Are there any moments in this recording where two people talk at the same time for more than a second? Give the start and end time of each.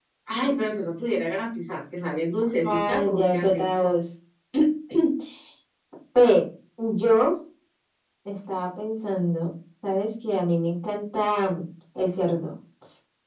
2.6-4.0

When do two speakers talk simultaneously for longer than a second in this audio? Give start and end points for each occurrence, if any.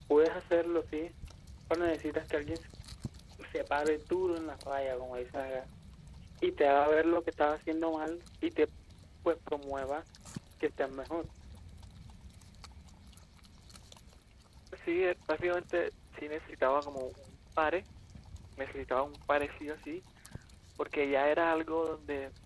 none

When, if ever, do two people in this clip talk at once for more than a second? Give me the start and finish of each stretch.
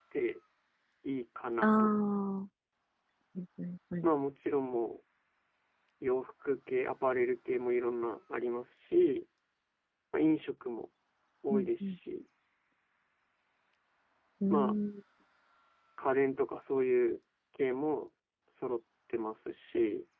none

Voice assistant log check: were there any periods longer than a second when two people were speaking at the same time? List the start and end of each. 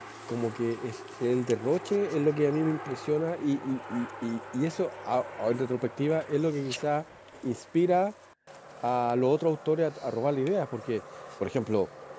none

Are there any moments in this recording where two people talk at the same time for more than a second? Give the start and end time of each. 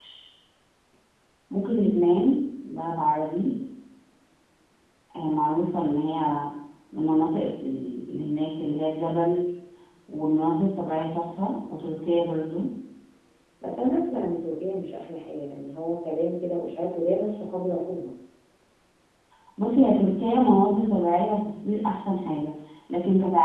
none

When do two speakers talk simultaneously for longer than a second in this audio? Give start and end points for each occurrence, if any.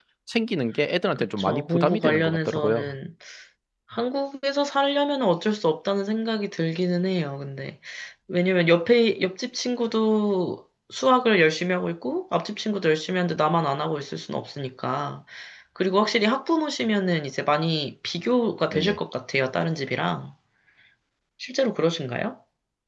1.2-2.9

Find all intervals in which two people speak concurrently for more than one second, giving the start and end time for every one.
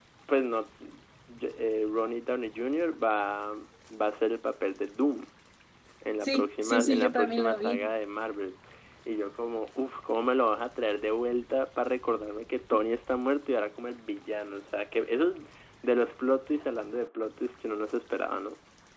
6.2-7.9

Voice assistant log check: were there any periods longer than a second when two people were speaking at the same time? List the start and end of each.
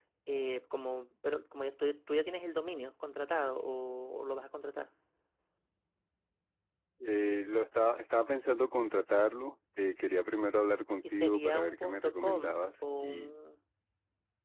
11.1-12.4

